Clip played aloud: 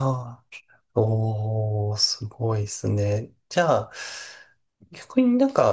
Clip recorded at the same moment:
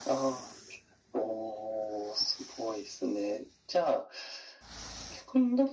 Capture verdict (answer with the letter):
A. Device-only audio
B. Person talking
A